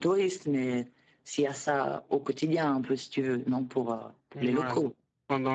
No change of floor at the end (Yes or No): No